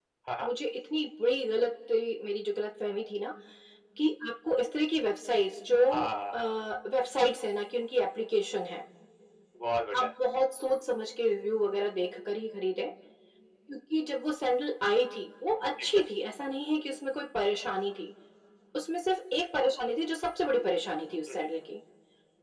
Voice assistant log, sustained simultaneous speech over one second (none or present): none